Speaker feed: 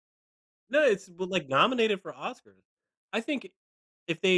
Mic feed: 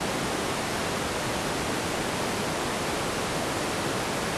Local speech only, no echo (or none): none